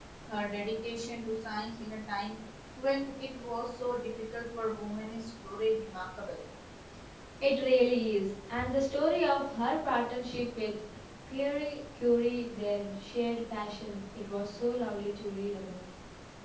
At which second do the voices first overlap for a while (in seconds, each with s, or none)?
none